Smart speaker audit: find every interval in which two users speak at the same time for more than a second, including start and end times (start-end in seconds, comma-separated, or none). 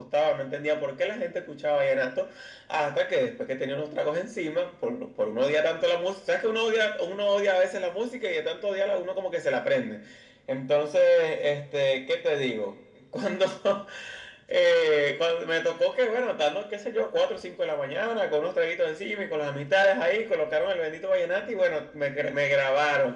none